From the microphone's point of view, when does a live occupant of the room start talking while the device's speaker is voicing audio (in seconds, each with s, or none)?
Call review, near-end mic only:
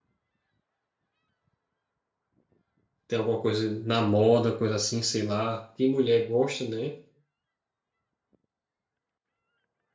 3.1 s